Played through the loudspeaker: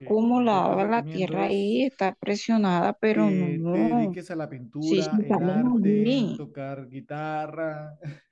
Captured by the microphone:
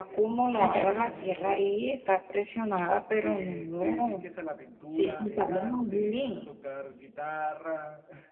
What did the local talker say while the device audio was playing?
Primero,

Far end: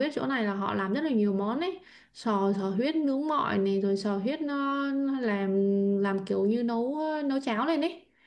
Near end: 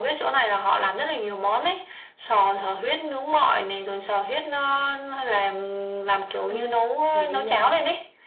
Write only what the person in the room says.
Ê, vậy ờ,

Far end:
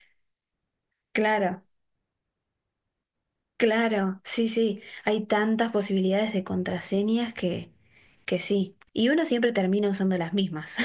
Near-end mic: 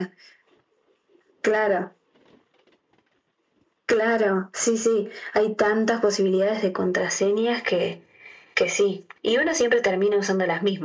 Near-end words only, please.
none

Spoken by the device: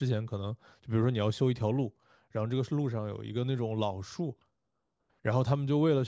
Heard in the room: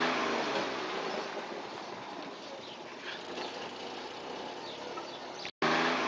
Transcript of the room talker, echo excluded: none

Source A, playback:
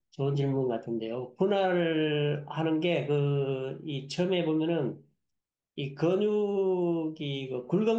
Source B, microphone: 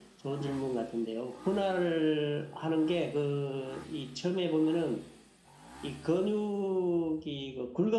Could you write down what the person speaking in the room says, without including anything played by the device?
none

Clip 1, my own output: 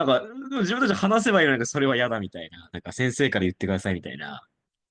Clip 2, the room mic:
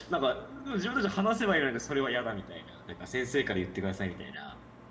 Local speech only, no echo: none

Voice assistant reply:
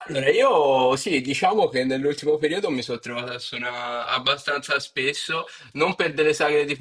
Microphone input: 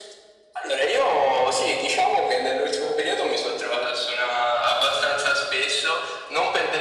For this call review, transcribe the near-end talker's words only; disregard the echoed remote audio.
none

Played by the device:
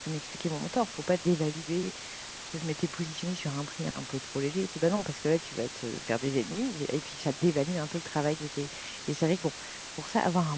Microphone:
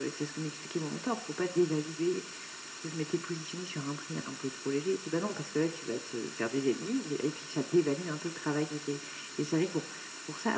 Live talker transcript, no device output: none

